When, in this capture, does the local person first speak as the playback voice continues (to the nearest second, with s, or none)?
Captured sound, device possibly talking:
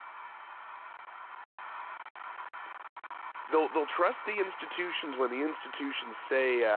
3 s